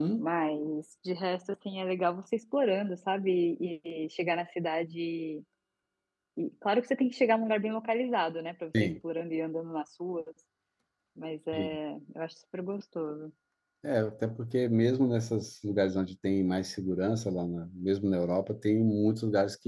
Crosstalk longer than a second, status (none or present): none